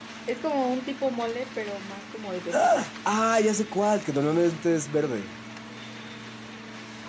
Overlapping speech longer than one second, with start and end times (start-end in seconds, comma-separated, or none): none